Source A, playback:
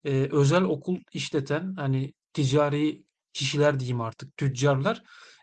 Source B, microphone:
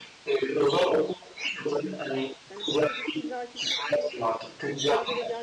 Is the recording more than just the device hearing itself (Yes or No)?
Yes